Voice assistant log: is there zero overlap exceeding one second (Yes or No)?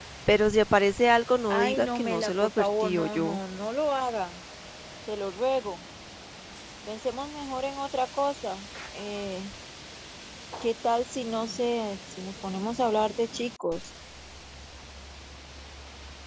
No